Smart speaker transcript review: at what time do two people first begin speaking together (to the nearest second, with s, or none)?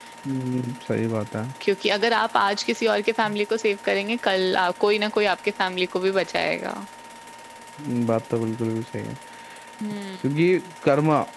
none